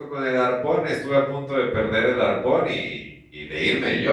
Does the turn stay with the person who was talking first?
Yes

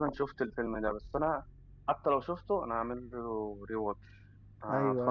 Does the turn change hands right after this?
Yes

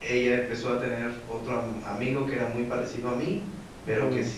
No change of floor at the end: Yes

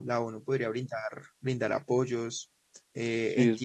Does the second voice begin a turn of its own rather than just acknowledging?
No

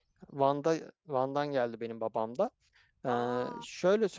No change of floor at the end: Yes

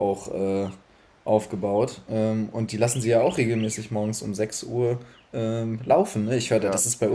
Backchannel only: Yes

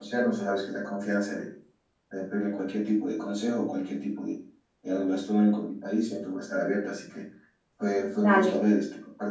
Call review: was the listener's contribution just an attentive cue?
Yes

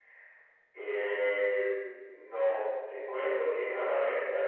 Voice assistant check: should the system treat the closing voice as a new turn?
No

